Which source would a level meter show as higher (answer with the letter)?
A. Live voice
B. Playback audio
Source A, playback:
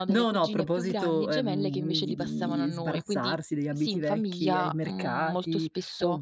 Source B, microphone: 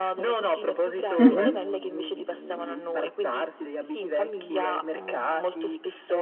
A